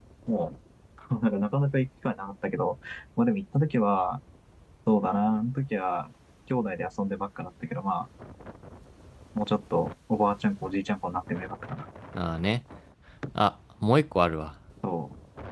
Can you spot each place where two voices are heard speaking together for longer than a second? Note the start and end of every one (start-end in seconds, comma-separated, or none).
none